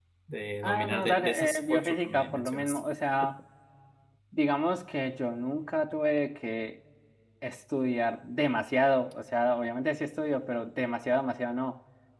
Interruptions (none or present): present